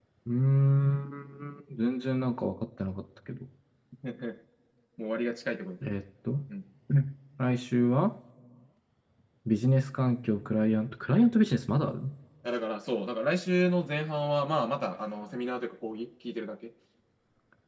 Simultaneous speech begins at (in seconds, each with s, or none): none